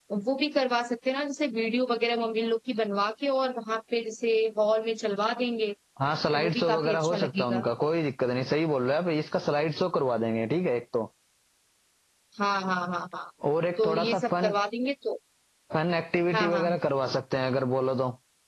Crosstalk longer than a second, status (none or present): present